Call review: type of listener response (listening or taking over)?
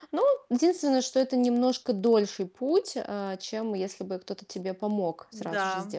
taking over